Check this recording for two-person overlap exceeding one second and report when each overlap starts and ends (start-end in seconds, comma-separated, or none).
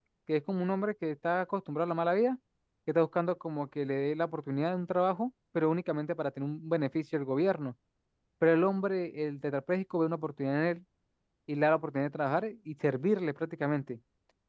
none